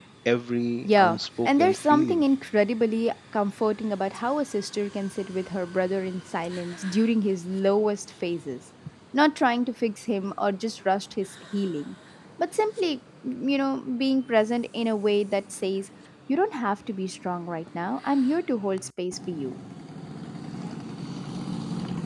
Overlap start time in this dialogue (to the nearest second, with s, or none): 1 s